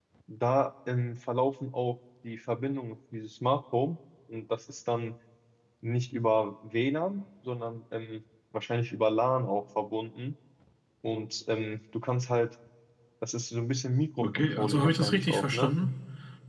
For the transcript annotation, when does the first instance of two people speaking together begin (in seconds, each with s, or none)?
14.2 s